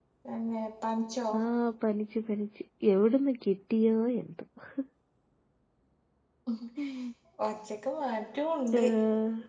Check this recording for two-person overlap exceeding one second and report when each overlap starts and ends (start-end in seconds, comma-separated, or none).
none